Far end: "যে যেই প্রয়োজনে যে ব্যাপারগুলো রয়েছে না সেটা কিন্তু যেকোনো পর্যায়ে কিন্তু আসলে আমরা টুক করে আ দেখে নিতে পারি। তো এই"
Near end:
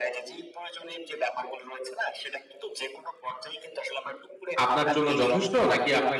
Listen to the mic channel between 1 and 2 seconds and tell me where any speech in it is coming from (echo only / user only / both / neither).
echo only